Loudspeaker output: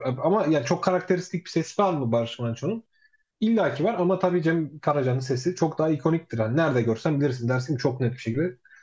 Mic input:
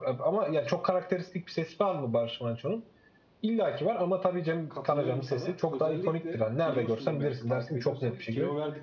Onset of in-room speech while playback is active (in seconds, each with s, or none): 4.7 s